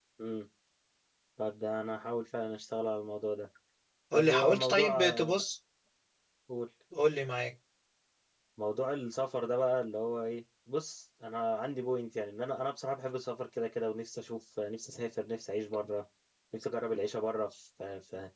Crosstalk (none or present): present